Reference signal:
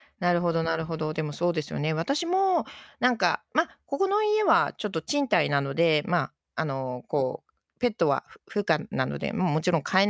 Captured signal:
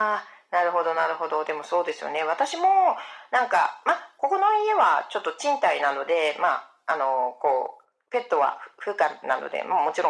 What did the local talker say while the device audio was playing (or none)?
none